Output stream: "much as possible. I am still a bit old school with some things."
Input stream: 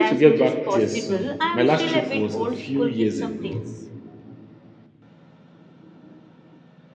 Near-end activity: present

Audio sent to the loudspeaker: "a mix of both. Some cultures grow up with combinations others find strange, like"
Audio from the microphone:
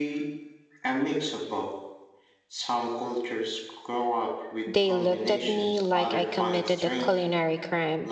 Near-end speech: present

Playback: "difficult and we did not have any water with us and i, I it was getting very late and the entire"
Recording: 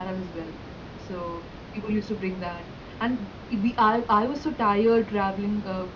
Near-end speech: present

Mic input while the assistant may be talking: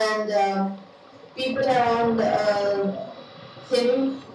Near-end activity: none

